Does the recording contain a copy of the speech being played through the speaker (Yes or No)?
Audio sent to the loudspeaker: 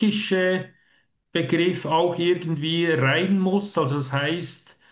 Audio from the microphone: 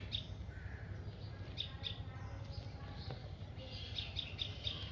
No